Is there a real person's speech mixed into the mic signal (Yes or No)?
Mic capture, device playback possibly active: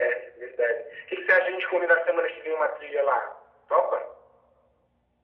No